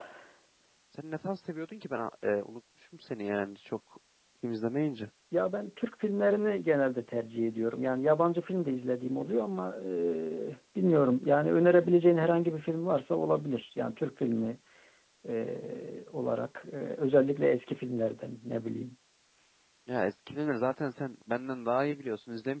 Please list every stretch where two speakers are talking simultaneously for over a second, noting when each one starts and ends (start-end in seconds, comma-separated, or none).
none